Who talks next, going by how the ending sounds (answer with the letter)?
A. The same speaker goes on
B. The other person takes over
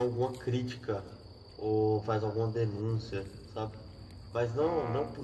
A